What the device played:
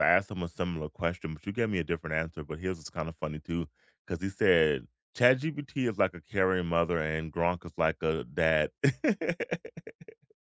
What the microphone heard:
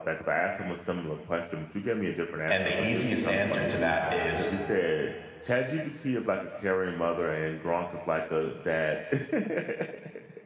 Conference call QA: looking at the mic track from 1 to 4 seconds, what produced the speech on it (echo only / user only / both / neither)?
both